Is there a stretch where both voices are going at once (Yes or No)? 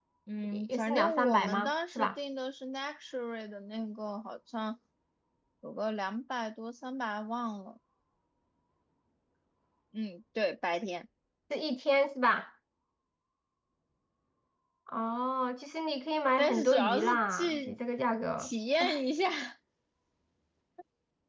Yes